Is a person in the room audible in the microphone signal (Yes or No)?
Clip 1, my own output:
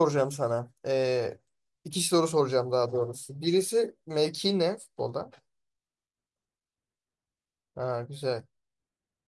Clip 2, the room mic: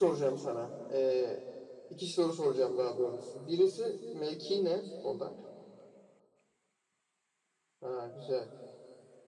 No